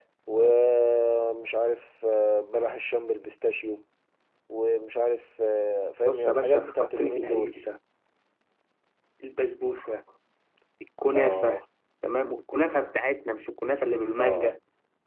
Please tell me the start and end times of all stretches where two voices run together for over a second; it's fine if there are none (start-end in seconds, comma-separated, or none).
6.0-7.5